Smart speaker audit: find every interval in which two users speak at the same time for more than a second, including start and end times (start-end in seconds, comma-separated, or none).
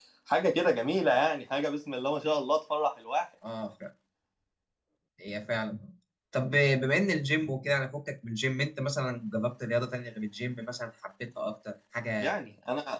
none